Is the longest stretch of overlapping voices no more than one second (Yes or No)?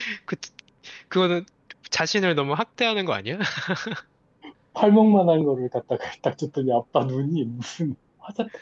Yes